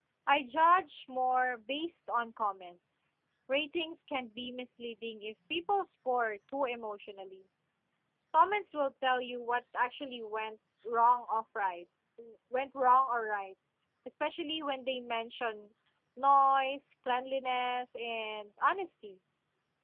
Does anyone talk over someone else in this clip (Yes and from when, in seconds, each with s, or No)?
No